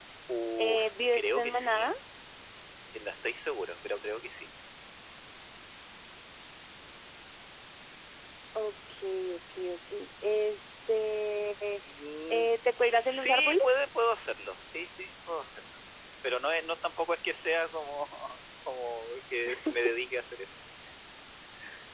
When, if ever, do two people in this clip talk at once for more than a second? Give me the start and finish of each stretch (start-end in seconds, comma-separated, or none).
0.6-1.9, 12.3-13.7